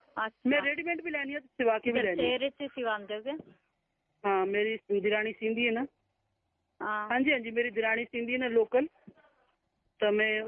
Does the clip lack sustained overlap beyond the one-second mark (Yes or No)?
Yes